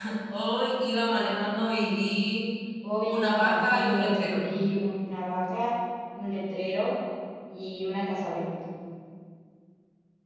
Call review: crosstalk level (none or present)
present